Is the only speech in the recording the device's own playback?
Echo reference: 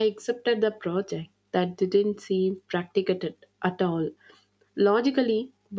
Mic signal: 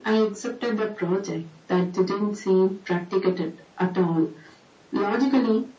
Yes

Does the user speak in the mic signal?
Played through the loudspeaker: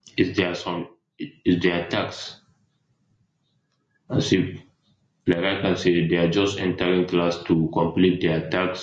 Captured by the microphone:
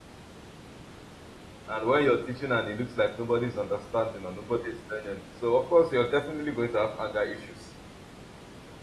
Yes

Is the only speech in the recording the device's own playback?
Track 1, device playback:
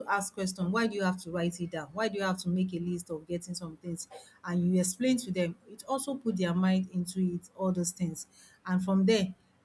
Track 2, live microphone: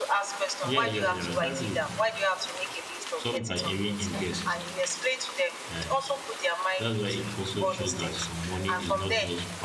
No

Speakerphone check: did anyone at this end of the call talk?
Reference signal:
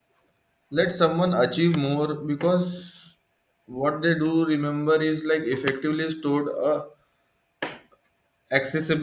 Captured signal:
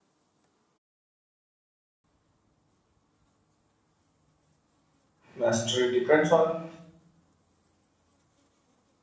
Yes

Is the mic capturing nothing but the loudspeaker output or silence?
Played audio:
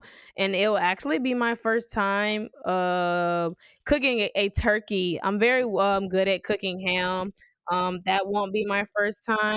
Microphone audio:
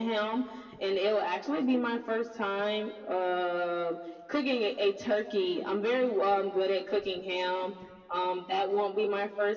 Yes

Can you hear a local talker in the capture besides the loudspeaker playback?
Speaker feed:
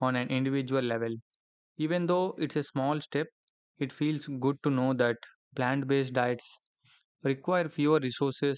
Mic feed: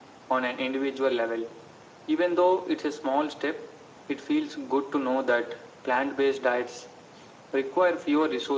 No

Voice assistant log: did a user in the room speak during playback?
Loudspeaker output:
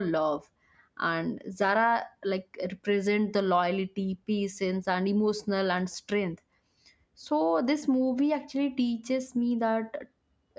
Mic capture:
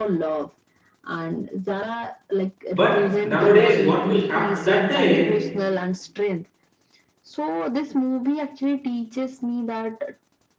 Yes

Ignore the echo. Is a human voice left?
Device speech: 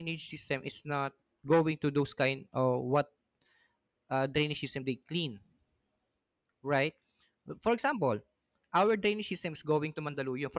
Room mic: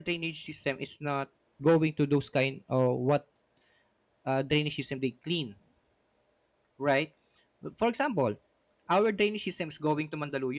No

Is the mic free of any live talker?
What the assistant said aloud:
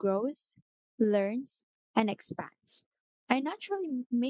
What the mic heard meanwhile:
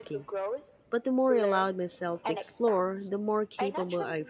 No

